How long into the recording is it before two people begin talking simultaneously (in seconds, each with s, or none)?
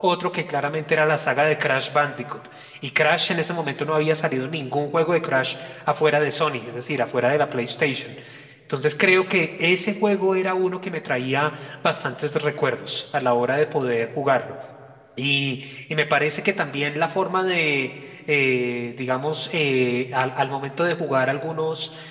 none